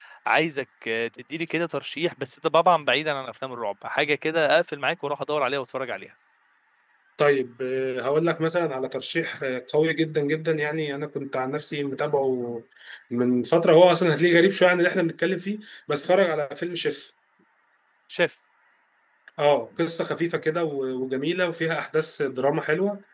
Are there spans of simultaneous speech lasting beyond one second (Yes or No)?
No